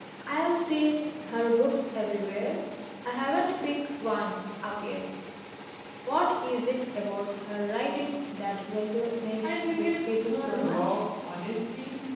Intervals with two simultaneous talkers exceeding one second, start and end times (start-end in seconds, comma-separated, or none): 9.5-10.8